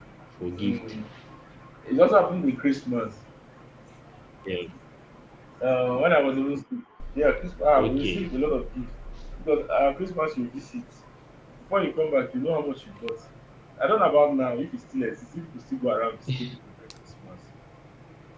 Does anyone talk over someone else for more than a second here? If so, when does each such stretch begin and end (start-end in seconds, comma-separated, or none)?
none